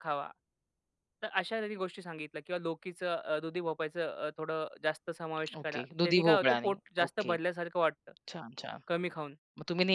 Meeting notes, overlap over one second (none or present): present